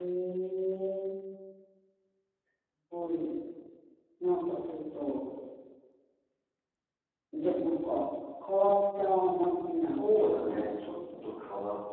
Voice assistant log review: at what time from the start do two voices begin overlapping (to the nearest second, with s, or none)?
10 s